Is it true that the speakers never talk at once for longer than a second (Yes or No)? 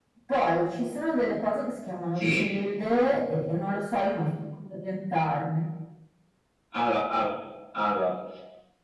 Yes